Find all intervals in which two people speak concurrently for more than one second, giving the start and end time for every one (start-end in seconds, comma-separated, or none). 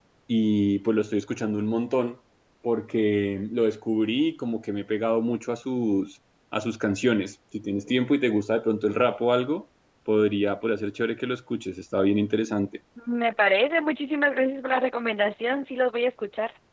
none